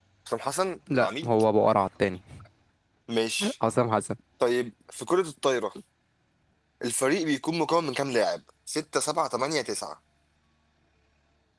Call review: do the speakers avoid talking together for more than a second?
Yes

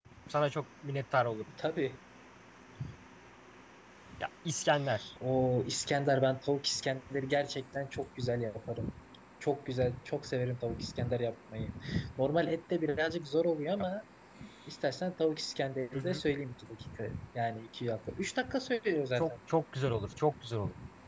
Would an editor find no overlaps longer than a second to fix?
Yes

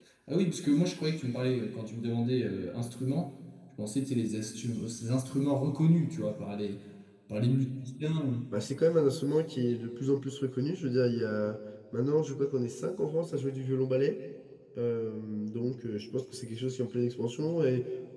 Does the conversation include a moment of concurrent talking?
No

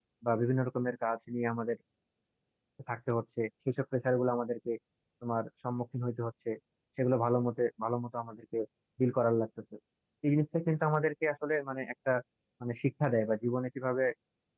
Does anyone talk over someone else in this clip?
No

